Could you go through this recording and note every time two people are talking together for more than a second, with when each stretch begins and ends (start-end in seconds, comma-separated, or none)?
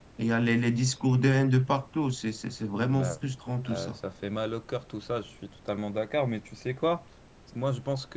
none